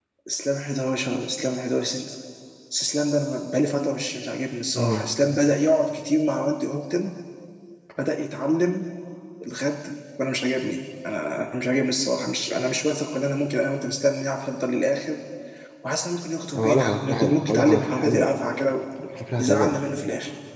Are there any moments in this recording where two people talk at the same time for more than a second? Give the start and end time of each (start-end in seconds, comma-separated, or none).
16.6-18.3